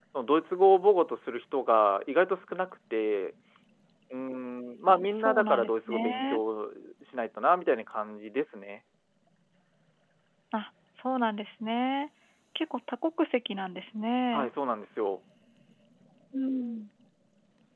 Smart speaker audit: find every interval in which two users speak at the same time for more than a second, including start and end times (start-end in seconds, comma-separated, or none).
4.9-6.4